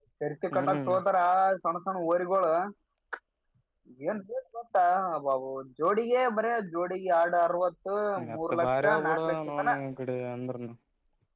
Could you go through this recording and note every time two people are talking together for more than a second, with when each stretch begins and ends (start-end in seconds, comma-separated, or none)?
8.3-9.7